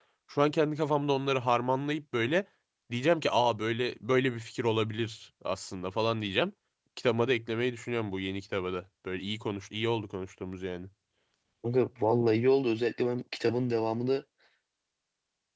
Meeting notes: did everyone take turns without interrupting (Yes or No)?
Yes